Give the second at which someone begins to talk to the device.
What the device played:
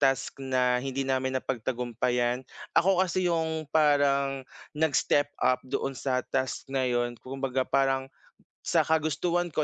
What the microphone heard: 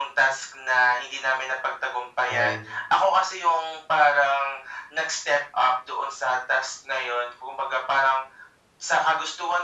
2.3 s

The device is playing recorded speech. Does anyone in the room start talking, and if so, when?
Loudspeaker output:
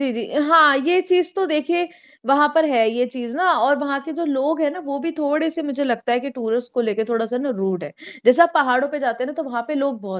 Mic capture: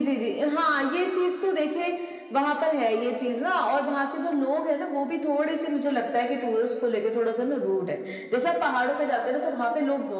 none

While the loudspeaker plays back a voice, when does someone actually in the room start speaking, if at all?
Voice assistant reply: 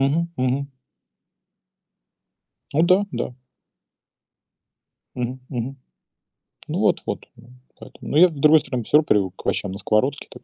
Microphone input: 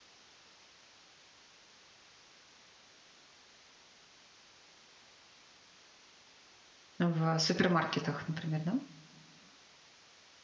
7.0 s

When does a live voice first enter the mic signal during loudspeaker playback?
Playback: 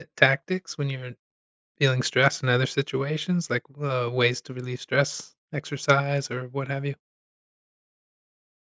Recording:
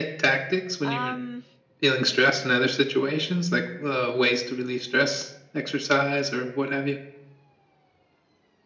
0.8 s

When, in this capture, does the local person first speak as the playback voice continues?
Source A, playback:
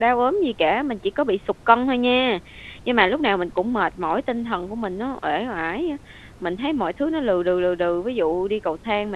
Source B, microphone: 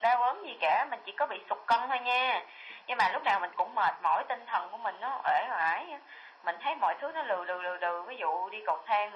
none

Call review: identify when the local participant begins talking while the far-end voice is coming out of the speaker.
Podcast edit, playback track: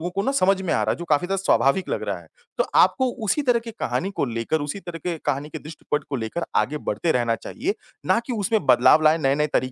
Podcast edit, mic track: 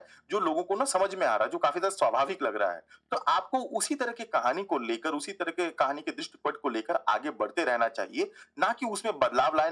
none

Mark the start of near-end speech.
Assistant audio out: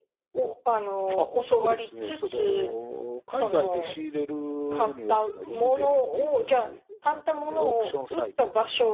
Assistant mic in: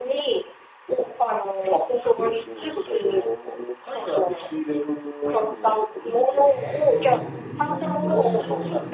6.4 s

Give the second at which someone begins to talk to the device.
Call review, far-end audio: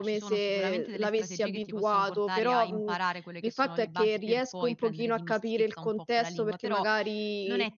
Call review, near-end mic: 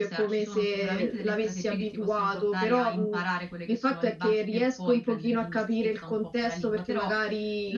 none

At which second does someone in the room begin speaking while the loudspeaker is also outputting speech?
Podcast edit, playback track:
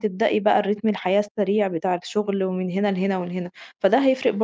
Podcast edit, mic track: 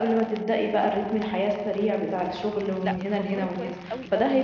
2.8 s

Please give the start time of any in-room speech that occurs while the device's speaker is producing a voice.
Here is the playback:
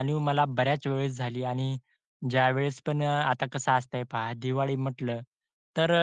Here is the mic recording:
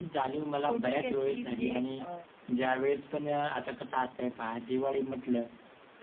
0.6 s

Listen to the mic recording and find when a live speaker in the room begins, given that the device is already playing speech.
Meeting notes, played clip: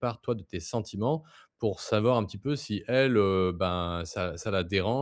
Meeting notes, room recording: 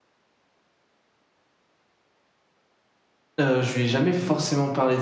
3.4 s

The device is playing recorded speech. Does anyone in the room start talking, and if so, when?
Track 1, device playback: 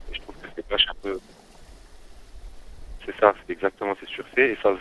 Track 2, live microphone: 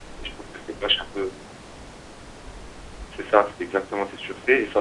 none

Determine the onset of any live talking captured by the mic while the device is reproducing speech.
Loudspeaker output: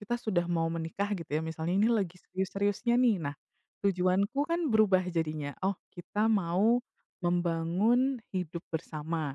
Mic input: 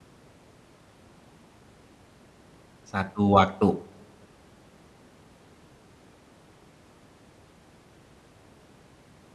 2.9 s

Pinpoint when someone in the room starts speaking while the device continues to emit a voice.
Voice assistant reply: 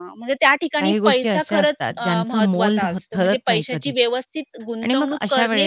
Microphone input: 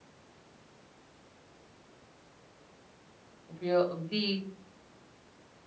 3.5 s

